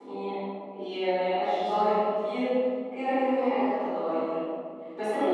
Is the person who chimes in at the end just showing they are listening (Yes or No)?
Yes